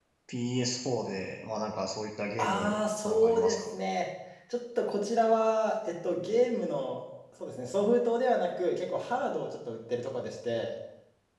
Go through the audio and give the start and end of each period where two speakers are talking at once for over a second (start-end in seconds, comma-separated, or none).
2.4-3.7